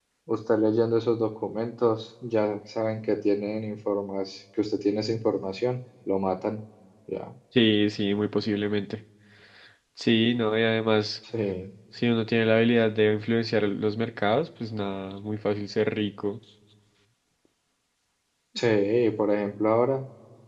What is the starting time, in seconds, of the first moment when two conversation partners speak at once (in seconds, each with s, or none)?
none